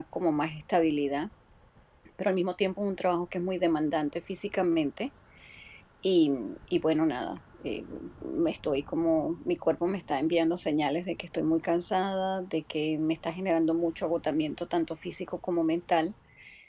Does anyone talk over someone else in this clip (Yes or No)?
No